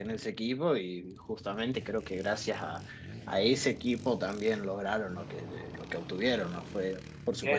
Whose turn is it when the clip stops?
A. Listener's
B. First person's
A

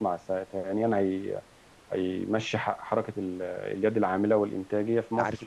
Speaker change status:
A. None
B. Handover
B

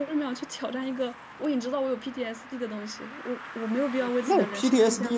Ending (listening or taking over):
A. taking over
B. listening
A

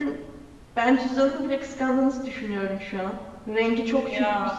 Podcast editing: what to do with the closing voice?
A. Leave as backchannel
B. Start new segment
A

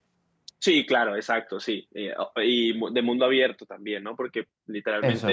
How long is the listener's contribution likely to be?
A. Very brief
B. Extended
A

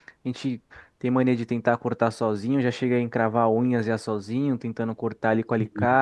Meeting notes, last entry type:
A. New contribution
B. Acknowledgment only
B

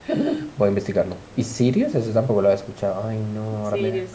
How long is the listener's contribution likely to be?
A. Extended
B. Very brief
A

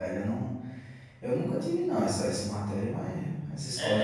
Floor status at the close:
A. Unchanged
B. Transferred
B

